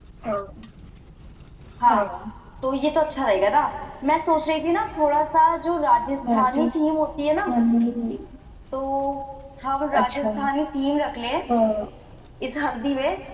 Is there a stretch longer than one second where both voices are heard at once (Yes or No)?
No